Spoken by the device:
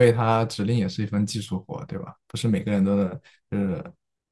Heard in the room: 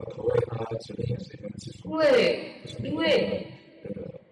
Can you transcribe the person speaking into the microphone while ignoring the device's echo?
因为因为

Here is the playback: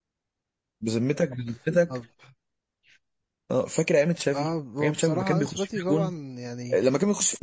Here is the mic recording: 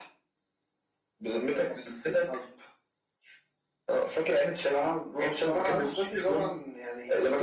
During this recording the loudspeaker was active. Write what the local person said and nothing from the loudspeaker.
none

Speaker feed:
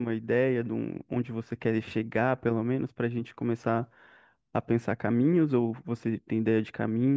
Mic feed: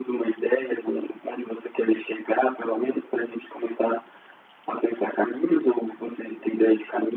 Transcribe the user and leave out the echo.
none

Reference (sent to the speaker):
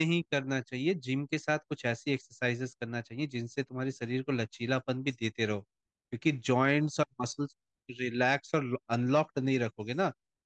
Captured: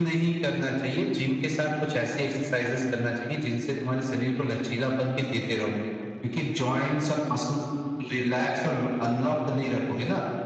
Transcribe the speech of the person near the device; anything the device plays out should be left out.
none

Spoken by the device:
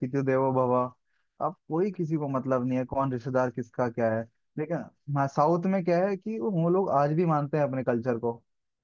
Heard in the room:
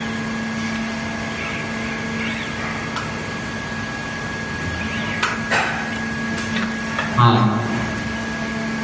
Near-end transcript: हाँ

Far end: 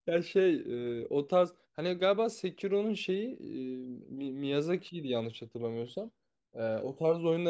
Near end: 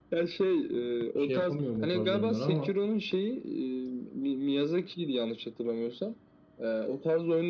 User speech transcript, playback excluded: şey yapamıyorum o tarz oyunlara ama

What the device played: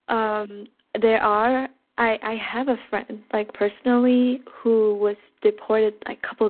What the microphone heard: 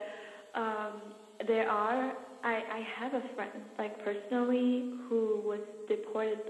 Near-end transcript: none

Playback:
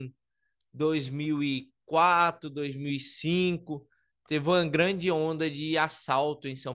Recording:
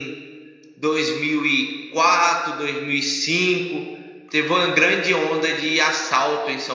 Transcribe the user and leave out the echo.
none

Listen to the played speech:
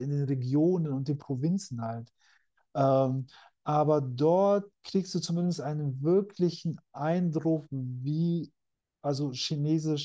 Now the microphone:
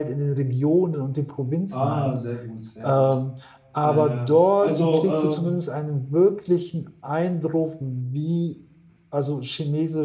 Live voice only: Ah, sehr gut, sehr gut. Naja, also ähm,

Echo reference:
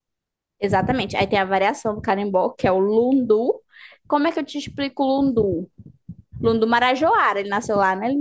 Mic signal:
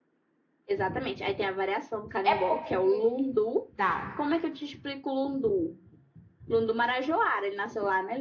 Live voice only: é porque dá.

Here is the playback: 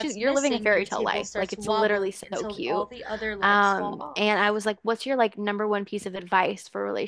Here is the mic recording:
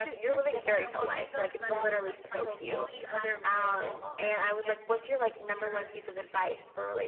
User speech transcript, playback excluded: When a woman does better than them financially, I've noticed that they get insecure

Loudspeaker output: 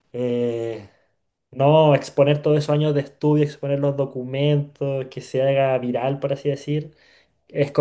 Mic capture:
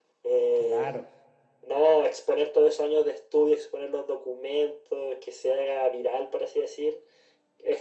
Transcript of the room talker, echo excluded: Claro.

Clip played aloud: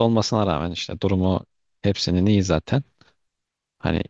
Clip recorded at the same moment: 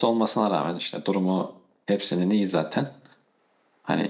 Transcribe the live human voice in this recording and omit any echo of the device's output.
none

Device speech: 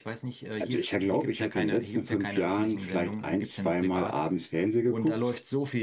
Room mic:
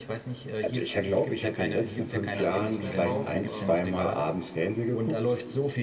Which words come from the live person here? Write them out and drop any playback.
äh, Apps da drauf, äh, auch diese

